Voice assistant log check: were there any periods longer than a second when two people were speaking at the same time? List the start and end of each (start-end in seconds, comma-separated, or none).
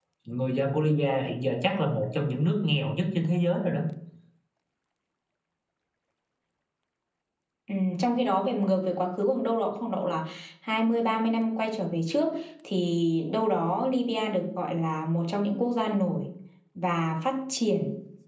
none